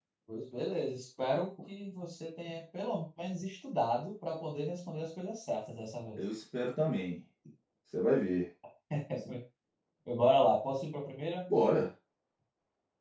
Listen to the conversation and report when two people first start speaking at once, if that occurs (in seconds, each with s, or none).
none